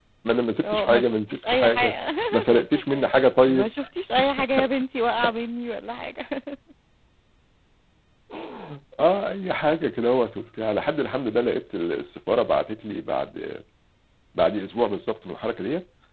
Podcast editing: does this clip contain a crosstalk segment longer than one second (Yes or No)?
Yes